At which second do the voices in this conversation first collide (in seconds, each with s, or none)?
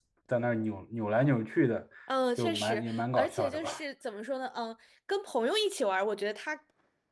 2.4 s